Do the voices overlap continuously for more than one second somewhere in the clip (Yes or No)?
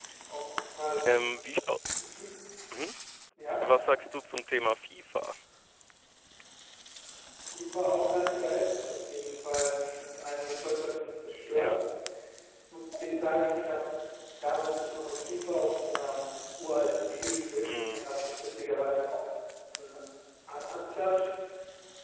No